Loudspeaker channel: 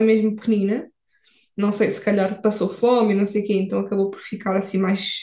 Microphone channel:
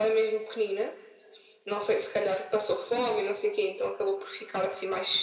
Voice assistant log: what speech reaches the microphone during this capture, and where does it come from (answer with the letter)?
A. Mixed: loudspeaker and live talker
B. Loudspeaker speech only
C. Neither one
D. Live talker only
B